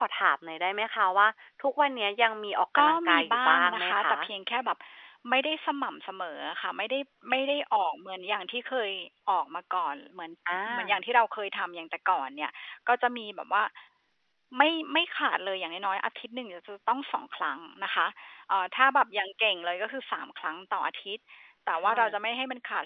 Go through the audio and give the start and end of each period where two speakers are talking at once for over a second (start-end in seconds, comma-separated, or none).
2.8-4.2